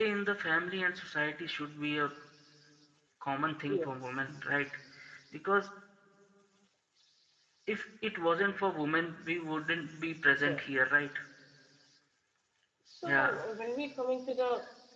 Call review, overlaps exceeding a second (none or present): none